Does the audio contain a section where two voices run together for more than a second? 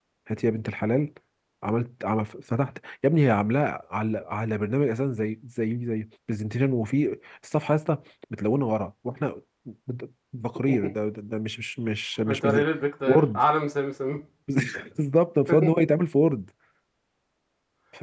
No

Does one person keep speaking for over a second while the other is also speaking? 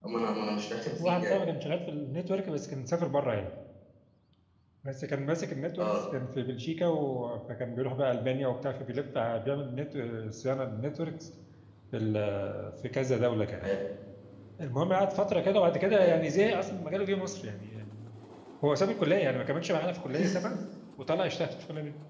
No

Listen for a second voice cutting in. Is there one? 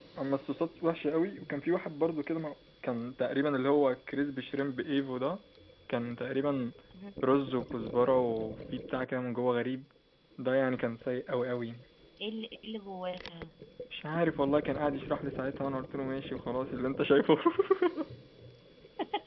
No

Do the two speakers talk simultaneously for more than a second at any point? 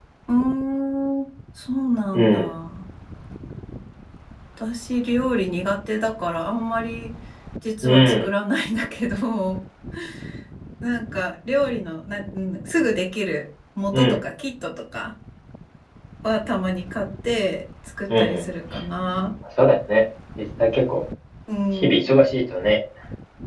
No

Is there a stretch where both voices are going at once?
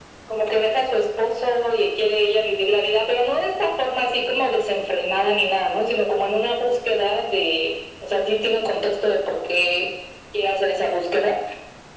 No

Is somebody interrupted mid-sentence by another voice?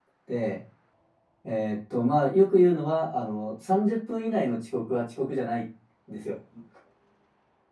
No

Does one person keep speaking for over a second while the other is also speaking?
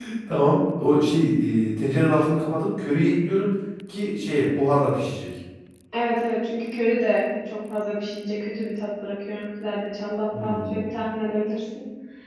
No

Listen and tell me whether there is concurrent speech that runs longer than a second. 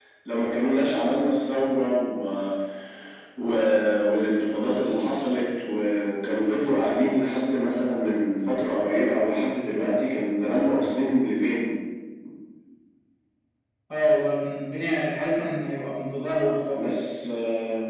No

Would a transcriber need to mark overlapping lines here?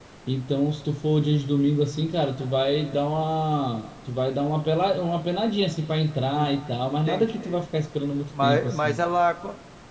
Yes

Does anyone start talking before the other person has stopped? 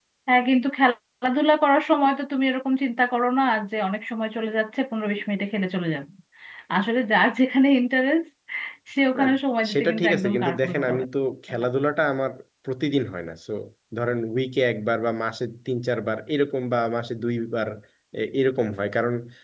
Yes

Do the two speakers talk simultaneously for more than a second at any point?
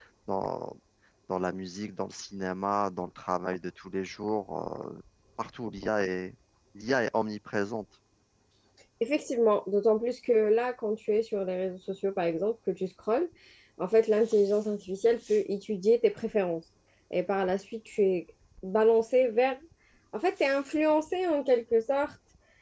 No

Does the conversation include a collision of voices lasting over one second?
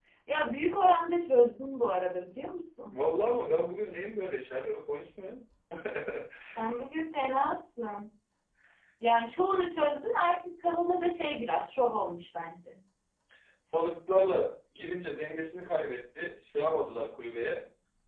No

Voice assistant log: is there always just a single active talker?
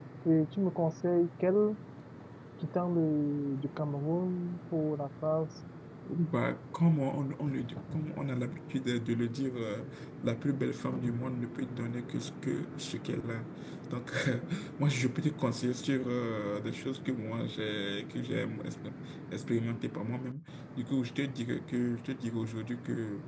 Yes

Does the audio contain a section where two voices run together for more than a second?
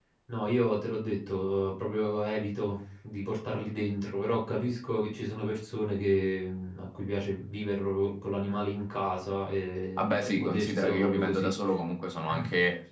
Yes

